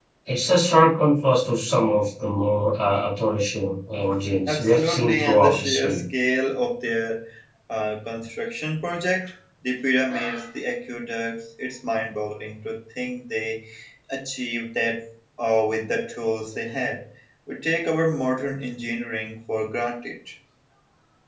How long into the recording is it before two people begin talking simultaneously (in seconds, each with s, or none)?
4.5 s